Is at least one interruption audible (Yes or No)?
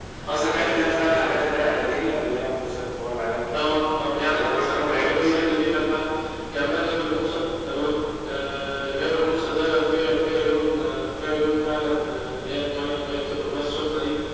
Yes